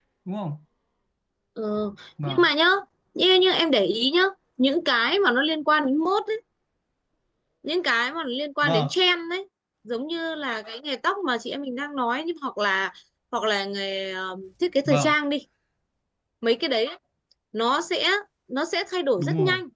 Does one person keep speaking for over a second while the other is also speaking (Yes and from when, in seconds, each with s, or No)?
No